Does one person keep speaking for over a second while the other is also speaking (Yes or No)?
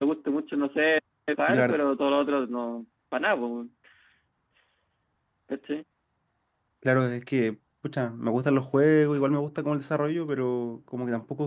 No